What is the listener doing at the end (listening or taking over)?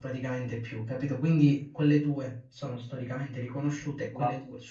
listening